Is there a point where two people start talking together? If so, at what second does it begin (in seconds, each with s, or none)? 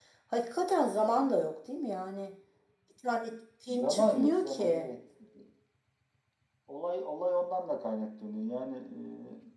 3.7 s